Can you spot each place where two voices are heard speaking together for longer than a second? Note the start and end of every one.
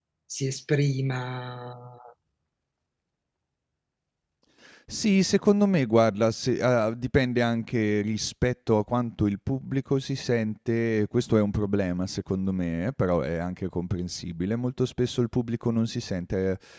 none

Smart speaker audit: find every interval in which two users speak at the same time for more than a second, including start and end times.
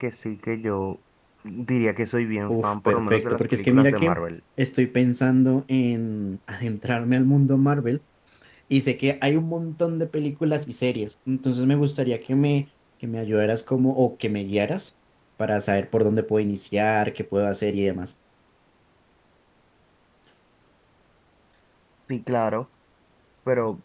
2.5-4.2

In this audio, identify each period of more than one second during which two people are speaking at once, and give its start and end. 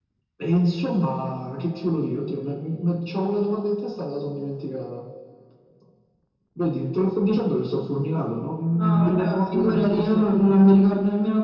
8.8-10.6

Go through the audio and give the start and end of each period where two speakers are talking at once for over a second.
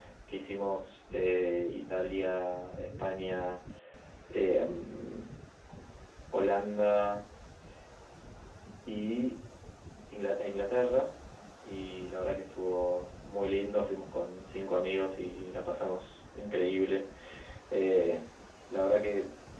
none

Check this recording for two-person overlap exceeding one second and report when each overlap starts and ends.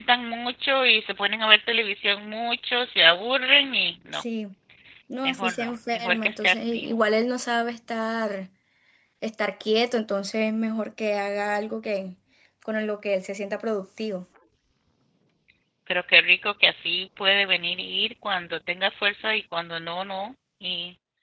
5.2-6.9

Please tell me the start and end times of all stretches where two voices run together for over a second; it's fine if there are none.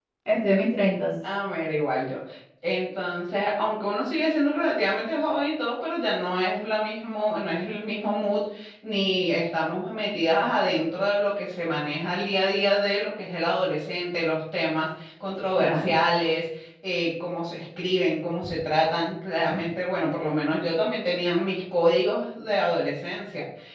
none

